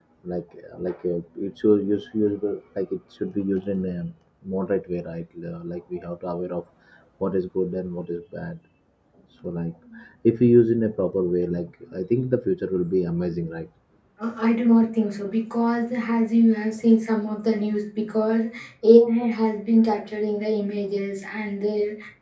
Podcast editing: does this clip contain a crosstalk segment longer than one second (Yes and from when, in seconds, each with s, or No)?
No